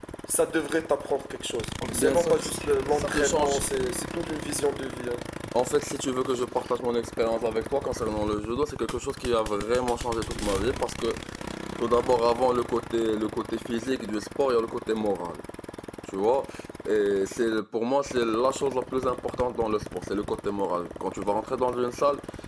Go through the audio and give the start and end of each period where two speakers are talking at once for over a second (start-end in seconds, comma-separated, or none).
2.0-3.6